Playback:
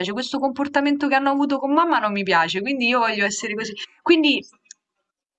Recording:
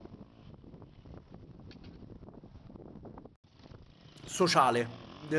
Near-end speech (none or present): present